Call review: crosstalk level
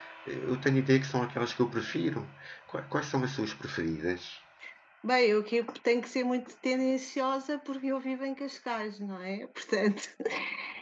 none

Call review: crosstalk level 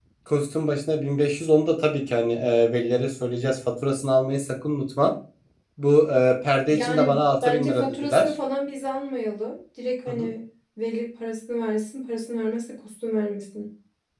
present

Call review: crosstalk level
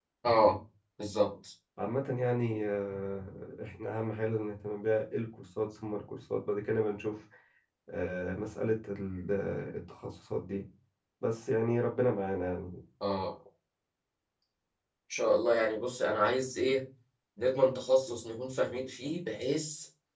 none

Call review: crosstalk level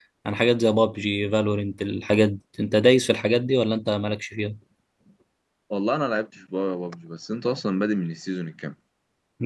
none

